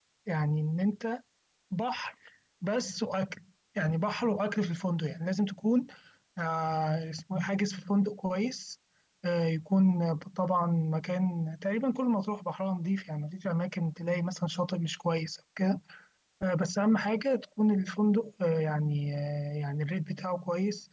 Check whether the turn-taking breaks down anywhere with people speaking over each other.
No

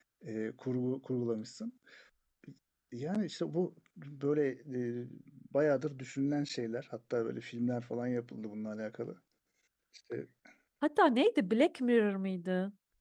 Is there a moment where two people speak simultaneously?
No

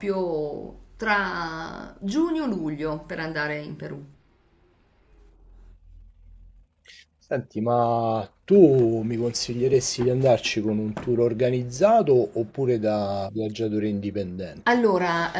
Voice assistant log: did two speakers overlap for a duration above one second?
No

